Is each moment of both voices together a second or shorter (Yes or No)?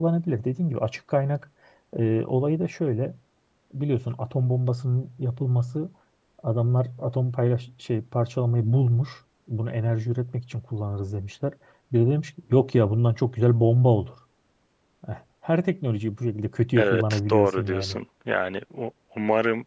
No